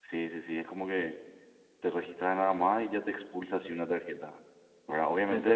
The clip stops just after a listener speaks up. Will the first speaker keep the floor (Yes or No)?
No